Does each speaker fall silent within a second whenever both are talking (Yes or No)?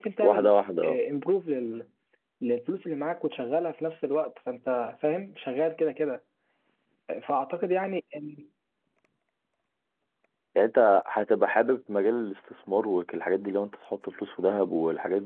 Yes